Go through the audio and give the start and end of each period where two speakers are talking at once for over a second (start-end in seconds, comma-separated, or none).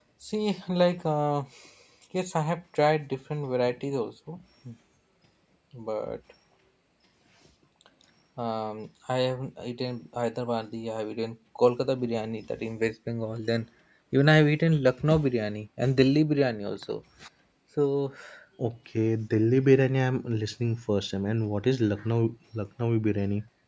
none